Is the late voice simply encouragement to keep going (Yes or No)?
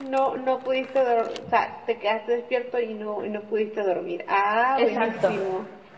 No